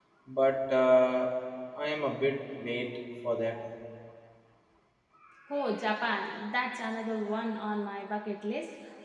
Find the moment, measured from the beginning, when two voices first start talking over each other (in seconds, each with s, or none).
none